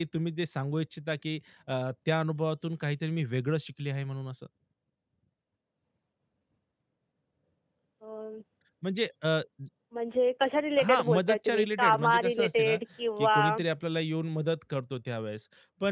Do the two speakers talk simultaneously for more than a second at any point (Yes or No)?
Yes